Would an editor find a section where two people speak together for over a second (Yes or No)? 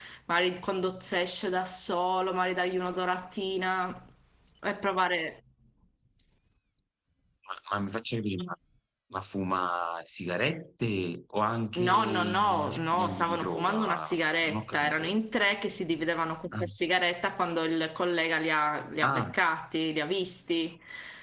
Yes